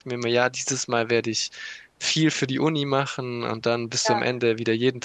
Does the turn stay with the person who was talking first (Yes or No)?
Yes